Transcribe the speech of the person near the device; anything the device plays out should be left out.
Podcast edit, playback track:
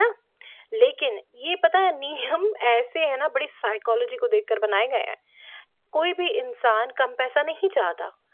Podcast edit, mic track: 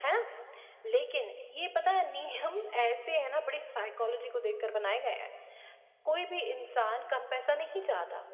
none

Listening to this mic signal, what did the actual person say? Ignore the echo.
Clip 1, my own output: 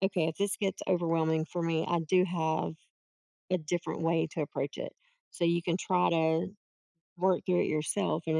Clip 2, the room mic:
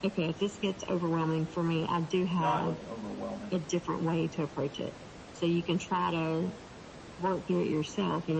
not like an overwhelming

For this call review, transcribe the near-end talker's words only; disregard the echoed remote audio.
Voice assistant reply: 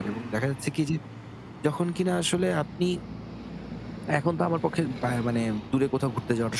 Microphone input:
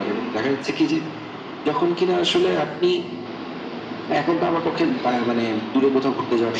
none

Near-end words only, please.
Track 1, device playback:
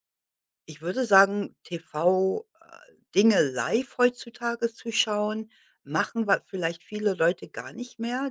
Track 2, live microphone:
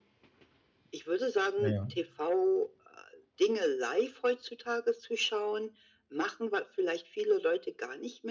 Ja.

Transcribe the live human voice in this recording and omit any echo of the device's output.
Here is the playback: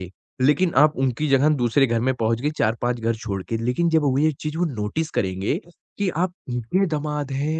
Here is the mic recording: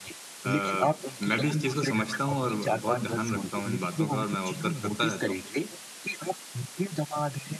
अ, मैं भी इस चीज़ को समझता हूँ और बहुत ध्यान रखता हूँ इन बातों का और मैं ऑब्ज़र्व करता रहता हूँ।

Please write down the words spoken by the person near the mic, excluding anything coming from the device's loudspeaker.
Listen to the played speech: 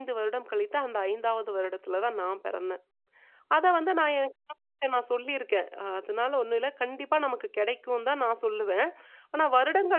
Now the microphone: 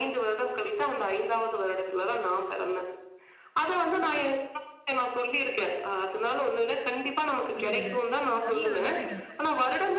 புரியுது. நல்லது தானேங்க அது.

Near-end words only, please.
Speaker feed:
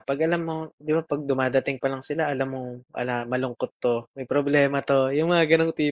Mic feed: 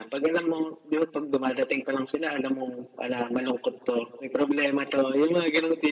none

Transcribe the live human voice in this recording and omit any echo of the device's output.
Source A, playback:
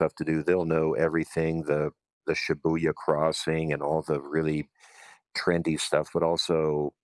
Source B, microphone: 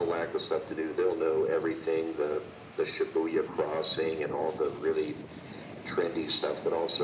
none

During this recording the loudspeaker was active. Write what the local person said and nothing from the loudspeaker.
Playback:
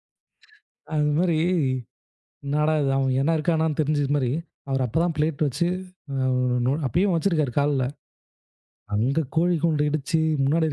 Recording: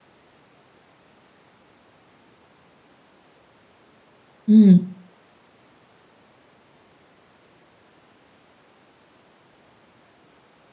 ம்.

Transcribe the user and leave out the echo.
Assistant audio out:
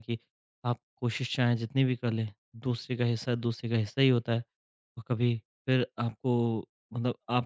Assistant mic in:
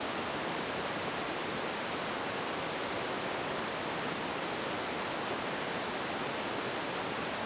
none

